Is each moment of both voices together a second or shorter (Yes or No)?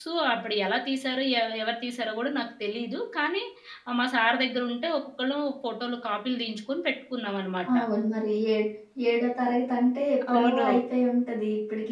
Yes